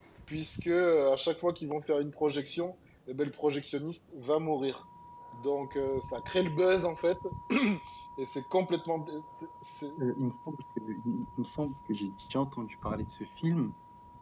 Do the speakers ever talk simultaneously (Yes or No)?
No